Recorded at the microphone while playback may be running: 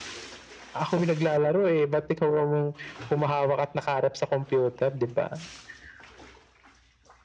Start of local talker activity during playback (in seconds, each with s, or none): none